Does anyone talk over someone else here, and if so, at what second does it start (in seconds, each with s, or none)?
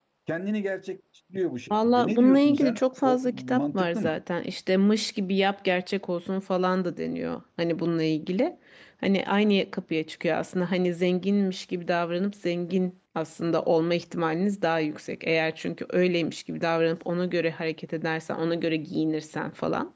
1.7 s